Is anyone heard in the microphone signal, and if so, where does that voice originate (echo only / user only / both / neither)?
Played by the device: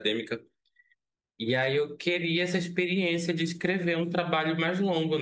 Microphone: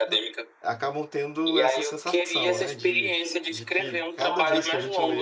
both